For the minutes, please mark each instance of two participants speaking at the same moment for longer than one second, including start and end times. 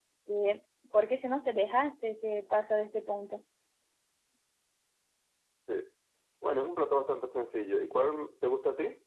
none

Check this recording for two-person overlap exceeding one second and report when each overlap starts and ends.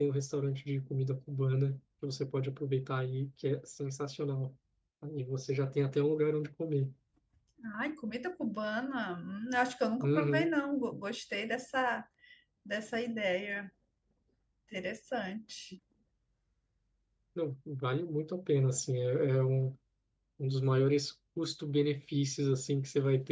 none

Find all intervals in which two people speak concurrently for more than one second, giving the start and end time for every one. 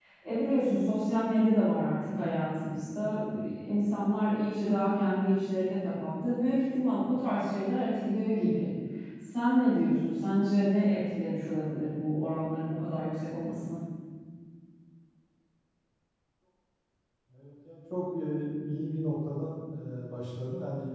none

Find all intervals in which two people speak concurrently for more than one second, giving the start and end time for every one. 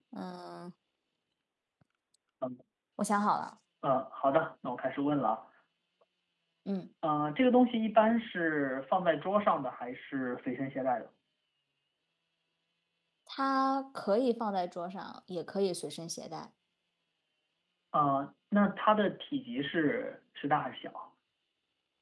none

